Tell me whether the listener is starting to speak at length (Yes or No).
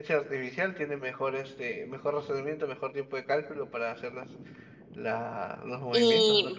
Yes